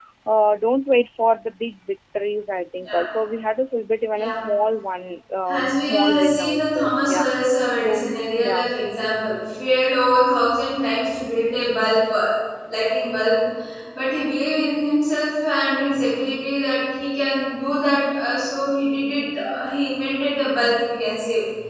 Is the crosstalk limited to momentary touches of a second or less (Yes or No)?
No